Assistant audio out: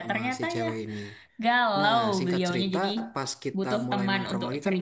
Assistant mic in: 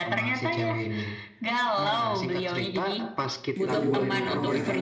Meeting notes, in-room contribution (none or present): present